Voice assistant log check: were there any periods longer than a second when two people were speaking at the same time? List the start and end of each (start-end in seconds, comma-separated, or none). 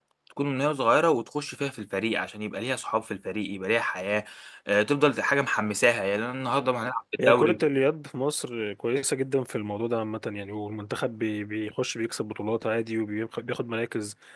none